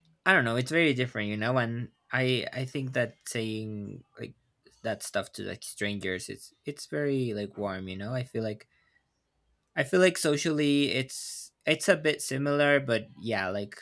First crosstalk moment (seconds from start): none

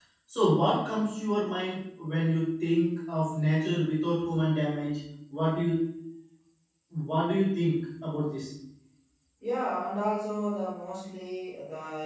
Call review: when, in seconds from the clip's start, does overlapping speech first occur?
none

